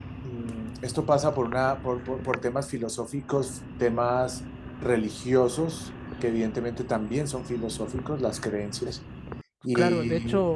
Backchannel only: No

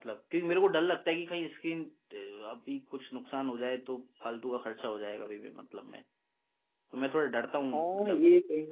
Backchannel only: No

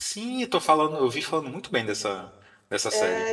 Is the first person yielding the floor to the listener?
Yes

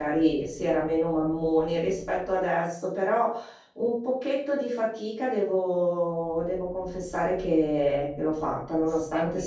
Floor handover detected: No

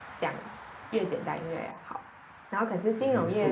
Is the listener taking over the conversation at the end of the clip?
No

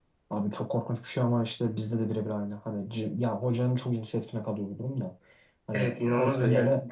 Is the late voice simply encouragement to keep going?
No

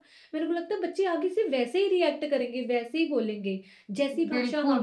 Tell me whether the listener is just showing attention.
No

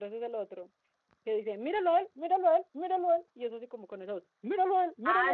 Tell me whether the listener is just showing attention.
No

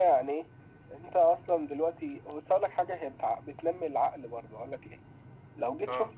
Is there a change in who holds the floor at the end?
No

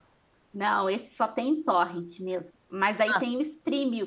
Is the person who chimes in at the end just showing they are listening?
Yes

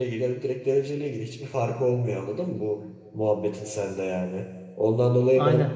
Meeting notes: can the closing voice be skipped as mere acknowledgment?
Yes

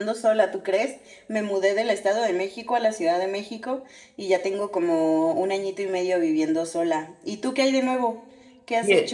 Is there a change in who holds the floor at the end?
Yes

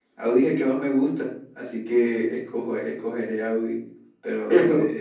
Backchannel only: Yes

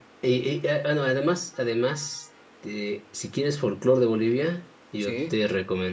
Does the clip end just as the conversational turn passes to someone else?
No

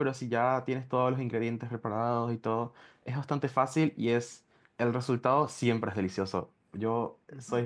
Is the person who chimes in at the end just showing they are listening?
No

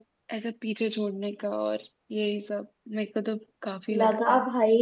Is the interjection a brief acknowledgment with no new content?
No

